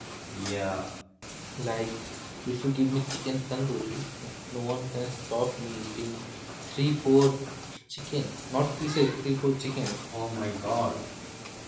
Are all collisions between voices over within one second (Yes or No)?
Yes